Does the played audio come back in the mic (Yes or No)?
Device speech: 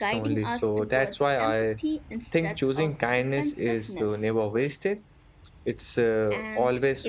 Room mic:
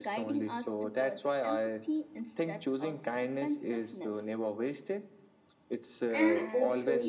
Yes